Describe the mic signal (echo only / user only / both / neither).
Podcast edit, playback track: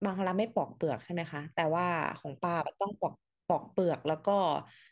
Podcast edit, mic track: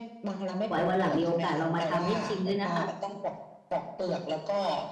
both